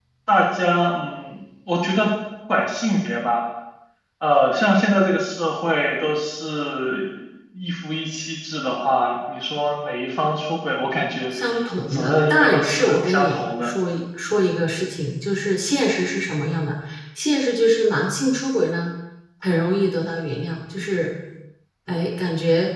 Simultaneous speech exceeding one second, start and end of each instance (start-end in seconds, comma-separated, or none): 11.9-13.7